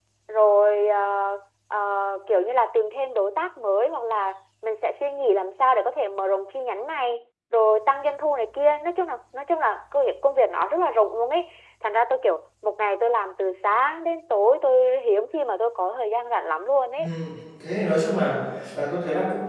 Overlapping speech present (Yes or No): No